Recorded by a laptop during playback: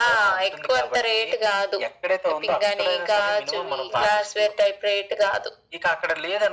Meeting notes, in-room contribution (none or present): none